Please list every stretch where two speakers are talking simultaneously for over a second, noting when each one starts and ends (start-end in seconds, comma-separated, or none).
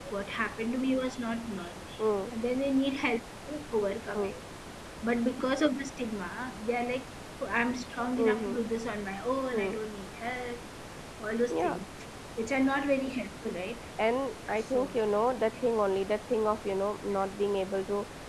none